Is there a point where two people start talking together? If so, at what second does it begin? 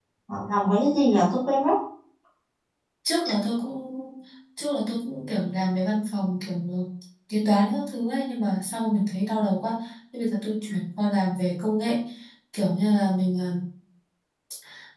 none

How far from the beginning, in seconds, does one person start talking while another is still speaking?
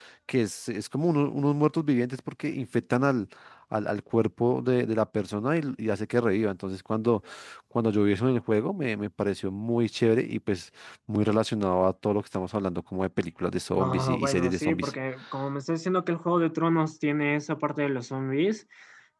13.7 s

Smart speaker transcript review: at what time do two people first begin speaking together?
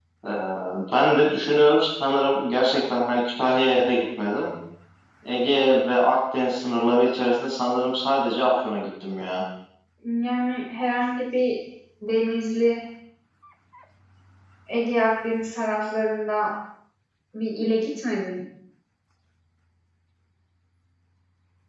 none

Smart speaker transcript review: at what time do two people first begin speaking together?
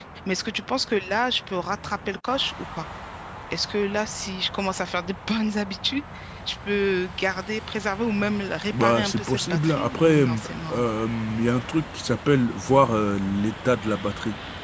8.7 s

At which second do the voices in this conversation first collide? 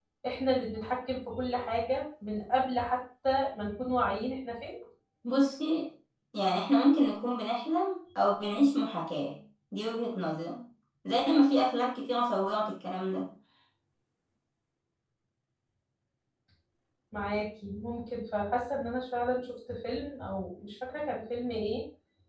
none

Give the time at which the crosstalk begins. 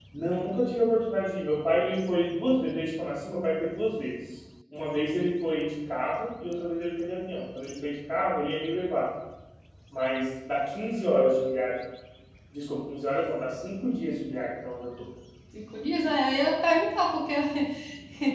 none

